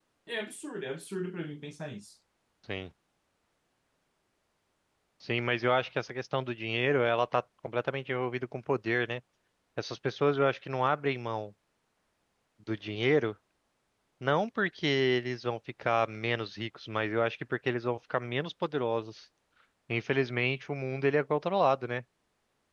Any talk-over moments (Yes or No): No